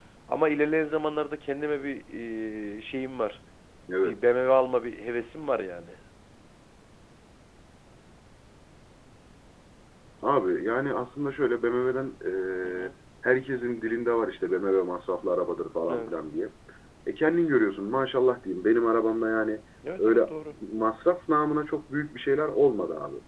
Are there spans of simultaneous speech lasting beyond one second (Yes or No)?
No